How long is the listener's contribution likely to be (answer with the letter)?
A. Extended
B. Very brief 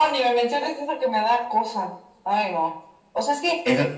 B